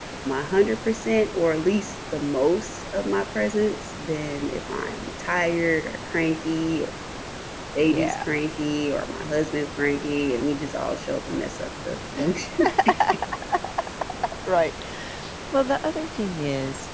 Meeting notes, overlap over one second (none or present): none